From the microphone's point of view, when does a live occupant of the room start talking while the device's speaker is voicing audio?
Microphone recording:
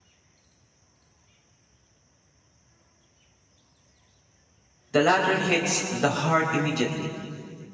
4.9 s

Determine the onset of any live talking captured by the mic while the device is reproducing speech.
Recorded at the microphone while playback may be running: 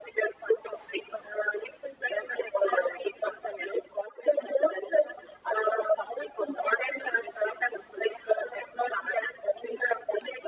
none

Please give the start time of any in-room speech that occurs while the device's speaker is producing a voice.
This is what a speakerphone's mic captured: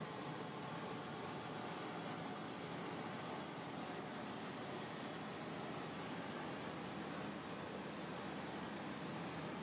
none

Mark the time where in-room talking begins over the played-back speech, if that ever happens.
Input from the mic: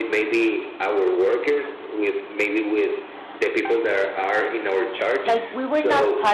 5.2 s

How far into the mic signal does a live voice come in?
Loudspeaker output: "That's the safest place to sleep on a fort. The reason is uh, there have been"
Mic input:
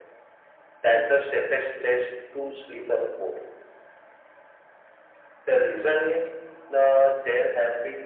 none

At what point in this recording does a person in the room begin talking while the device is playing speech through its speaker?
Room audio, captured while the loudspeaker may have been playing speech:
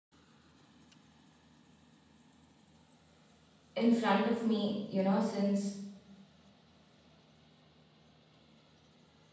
3.7 s

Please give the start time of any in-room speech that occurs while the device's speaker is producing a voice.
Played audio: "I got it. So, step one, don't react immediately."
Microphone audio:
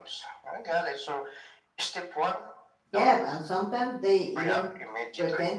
2.9 s

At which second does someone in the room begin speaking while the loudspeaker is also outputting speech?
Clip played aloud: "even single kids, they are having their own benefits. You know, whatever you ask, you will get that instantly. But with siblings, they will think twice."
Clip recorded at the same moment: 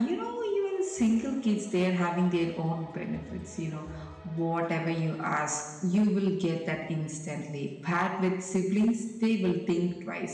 none

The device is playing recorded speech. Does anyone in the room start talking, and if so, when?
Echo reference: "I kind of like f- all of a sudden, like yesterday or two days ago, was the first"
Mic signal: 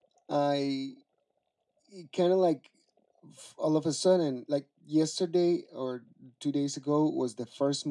none

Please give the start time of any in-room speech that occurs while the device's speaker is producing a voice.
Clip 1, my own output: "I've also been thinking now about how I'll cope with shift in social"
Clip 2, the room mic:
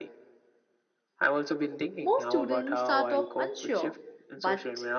2.0 s

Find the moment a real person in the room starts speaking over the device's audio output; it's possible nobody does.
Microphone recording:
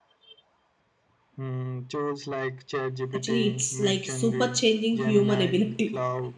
3.1 s

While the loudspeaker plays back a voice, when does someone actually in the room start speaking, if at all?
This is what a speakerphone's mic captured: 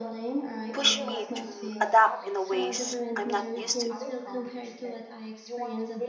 0.7 s

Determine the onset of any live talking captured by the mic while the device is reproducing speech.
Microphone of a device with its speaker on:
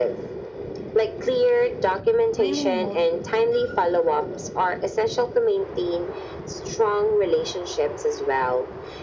2.4 s

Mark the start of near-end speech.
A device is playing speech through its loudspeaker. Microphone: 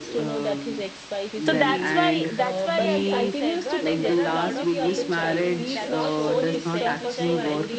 1.5 s

